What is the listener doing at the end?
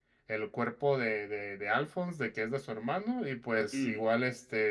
listening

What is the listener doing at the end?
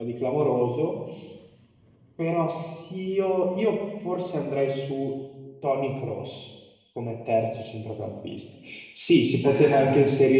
listening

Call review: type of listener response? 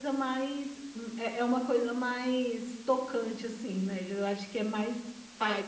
taking over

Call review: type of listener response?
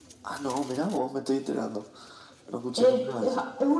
taking over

